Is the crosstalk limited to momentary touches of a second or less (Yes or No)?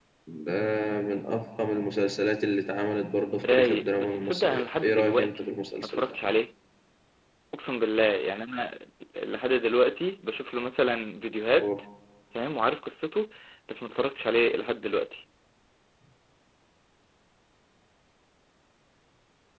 No